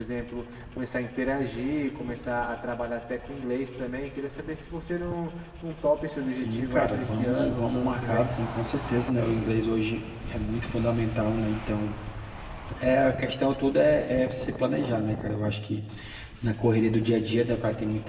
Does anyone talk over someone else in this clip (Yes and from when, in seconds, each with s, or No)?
Yes, from 6.3 s